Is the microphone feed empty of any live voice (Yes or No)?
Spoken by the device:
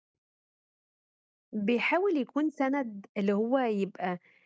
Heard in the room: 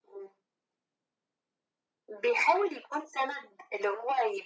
Yes